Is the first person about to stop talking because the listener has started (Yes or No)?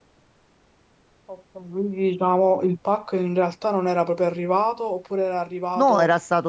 Yes